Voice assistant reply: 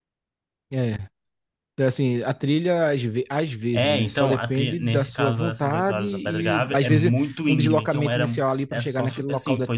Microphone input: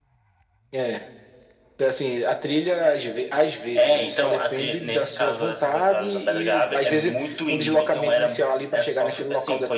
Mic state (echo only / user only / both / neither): echo only